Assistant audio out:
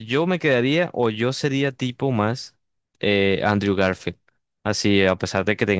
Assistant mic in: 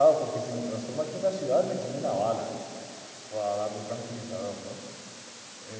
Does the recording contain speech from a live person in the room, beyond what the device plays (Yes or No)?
Yes